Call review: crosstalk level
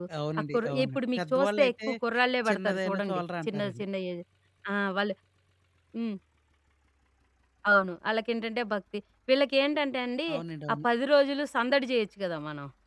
present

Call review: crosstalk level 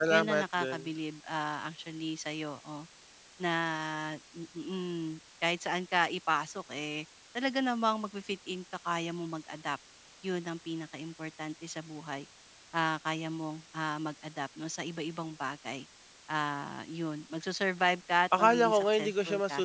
present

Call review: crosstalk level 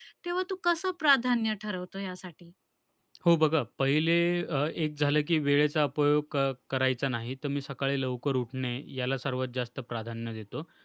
none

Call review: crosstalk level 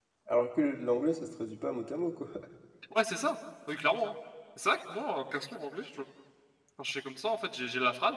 none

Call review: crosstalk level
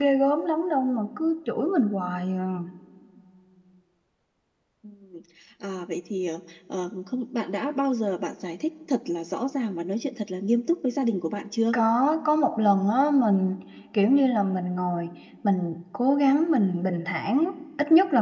none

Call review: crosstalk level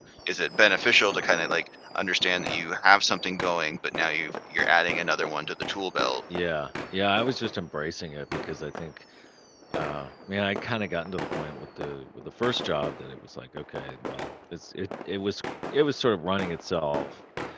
none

